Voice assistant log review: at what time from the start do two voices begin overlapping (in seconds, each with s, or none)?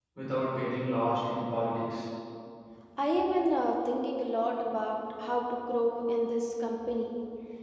none